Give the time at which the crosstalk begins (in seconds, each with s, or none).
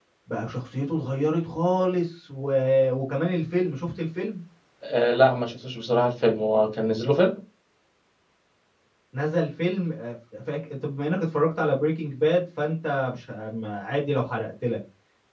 none